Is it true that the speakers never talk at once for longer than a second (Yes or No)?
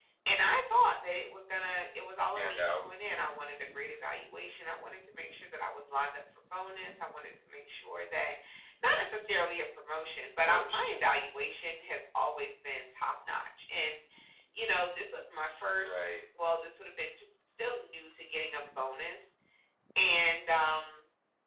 Yes